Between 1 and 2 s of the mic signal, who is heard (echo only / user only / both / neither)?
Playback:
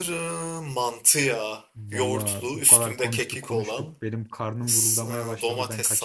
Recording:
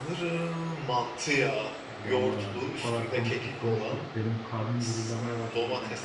echo only